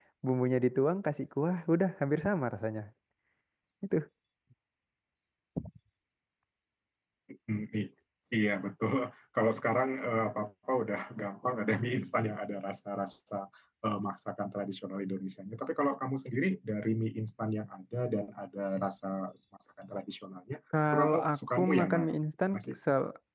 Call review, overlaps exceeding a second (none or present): present